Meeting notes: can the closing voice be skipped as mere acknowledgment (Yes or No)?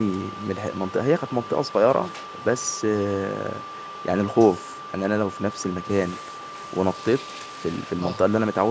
Yes